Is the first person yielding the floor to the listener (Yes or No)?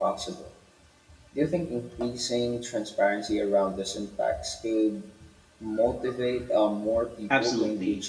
Yes